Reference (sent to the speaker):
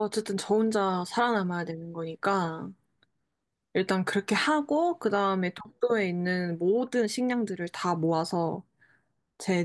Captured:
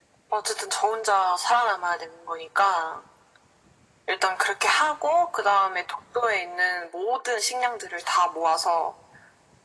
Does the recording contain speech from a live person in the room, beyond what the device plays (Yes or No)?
No